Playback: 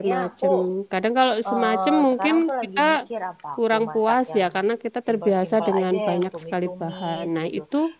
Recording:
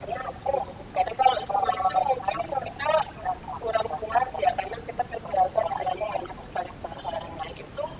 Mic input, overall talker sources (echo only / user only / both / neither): echo only